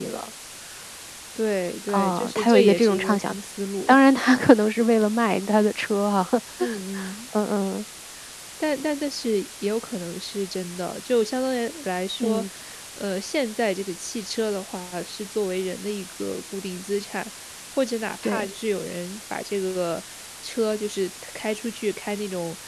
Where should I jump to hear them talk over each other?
1.9 s

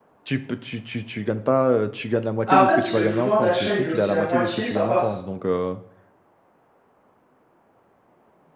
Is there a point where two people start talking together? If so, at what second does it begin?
2.5 s

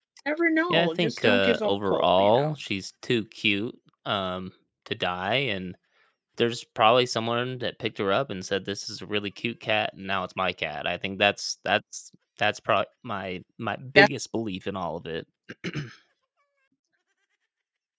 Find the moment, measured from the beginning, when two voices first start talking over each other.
0.7 s

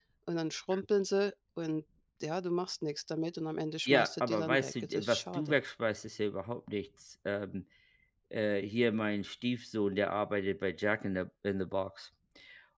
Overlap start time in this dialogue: 3.9 s

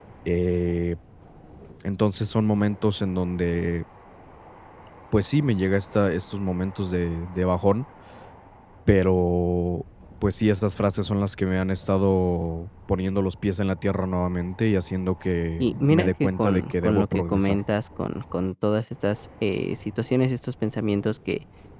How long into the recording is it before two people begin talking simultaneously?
15.6 s

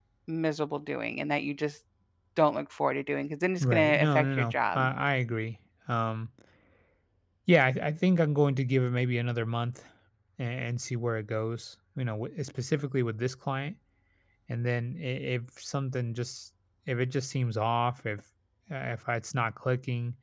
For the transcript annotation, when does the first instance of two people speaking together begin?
3.6 s

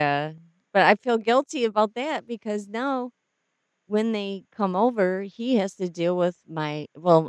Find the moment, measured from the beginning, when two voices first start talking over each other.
none

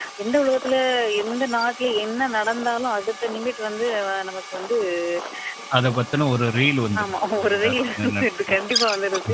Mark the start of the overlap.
7.0 s

